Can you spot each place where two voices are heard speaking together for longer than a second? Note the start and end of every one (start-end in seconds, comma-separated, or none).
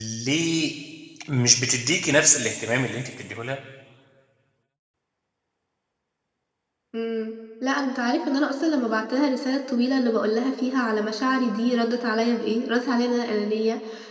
none